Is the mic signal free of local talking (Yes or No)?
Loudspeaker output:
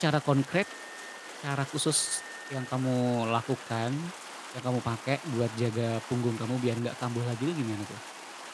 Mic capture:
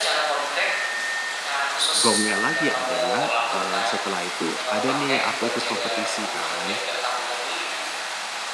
No